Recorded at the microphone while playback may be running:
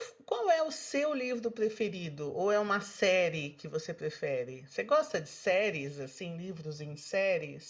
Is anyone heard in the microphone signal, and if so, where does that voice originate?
user only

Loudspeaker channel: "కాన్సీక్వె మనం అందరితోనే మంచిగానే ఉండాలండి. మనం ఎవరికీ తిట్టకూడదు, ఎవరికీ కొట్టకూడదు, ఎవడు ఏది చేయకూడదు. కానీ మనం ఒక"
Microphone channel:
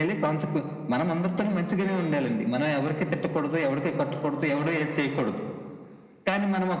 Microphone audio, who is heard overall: both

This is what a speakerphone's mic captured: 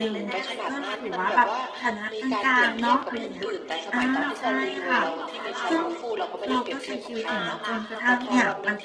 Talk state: both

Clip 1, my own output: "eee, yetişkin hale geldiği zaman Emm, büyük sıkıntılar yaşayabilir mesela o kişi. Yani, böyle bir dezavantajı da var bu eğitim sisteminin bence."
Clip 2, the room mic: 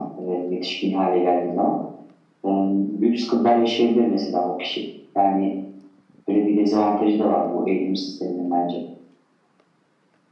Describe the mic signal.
echo only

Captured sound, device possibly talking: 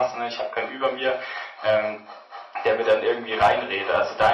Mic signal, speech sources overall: echo only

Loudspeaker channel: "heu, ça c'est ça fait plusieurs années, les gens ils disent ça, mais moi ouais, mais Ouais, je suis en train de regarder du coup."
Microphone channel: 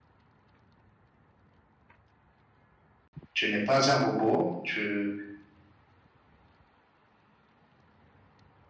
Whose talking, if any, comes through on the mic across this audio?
user only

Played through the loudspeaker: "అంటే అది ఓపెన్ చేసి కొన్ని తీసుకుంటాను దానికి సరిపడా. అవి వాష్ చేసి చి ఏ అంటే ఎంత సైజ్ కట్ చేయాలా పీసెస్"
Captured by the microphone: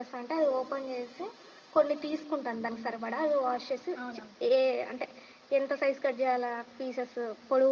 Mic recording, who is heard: both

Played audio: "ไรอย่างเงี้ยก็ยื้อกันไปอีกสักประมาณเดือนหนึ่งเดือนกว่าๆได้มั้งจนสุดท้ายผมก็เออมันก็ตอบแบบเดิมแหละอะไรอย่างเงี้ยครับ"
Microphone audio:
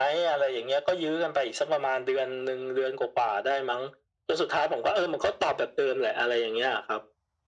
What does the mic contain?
echo only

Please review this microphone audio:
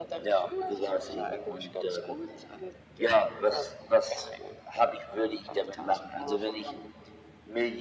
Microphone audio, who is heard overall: echo only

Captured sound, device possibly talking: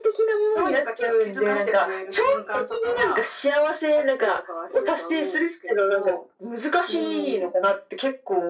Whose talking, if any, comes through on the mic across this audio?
echo only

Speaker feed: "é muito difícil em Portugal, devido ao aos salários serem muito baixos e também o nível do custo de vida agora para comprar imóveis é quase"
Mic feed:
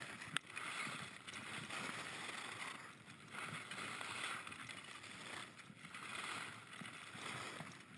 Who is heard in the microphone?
neither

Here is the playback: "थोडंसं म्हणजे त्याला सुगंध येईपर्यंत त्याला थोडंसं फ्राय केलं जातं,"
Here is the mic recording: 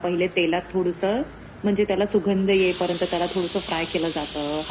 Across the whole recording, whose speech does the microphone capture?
echo only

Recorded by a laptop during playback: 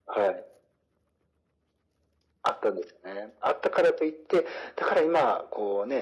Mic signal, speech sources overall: echo only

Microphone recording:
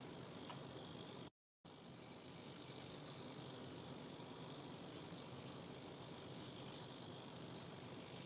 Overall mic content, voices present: neither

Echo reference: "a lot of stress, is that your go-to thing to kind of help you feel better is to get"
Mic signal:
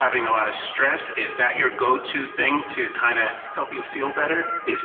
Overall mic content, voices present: echo only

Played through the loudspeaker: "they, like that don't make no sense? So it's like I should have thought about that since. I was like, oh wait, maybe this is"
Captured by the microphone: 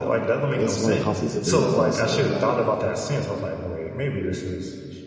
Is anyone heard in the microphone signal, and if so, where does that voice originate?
both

